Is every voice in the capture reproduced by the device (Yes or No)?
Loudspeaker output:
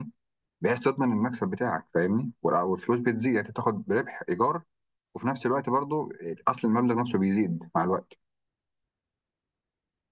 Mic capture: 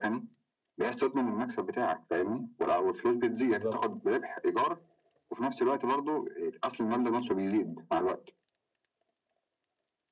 No